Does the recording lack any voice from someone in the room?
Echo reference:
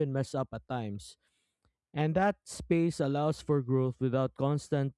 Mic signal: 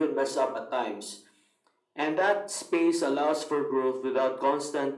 Yes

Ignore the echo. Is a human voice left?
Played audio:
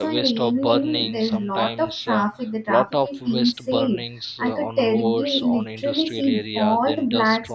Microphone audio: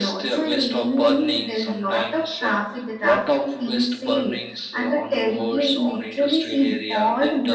No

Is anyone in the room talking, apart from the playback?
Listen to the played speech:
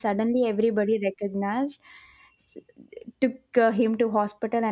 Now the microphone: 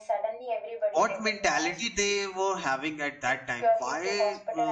Yes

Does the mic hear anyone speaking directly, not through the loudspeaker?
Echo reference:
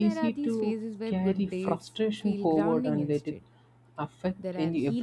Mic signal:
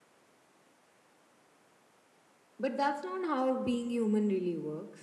Yes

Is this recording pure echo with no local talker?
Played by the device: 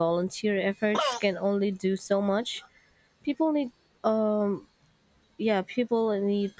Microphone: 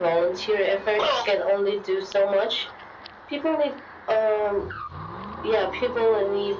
Yes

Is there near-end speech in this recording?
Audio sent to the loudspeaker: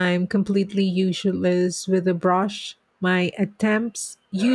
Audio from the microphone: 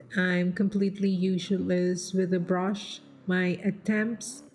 No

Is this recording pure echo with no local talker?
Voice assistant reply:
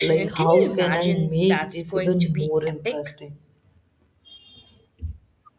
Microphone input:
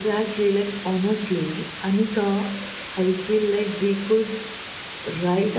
No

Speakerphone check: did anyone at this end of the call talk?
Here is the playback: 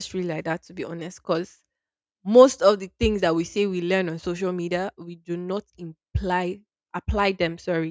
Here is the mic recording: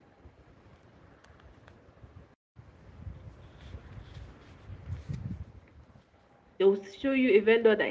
Yes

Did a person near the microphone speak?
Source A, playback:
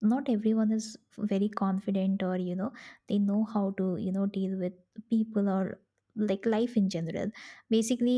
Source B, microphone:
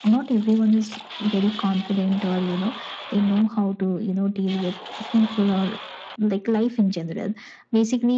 No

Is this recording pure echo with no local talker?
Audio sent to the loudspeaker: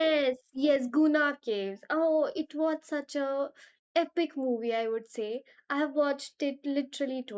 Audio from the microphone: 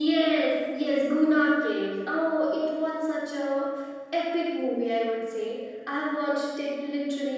Yes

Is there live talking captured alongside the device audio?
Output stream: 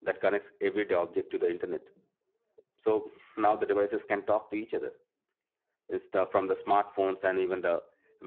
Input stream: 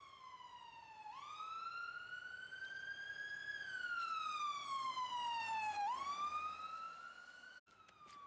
No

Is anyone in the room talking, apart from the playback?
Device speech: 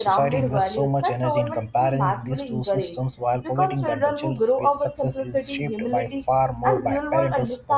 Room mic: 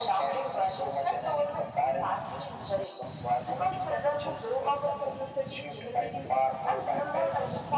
No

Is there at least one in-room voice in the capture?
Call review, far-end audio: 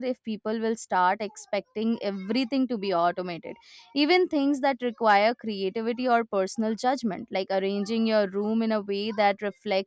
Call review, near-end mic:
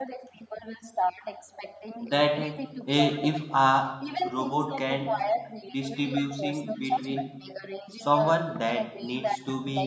Yes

